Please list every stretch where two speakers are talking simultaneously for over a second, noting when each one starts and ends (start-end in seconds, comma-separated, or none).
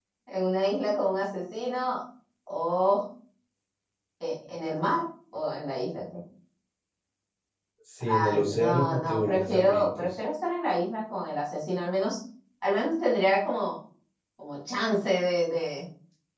8.0-10.2